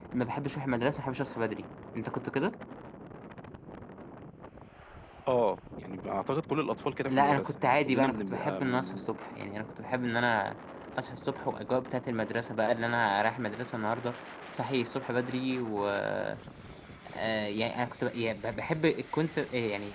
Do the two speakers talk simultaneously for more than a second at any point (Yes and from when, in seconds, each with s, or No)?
Yes, from 7.1 s